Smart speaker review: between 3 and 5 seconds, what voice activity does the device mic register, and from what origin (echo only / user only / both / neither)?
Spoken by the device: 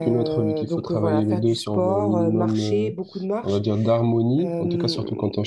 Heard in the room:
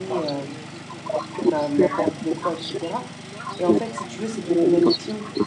both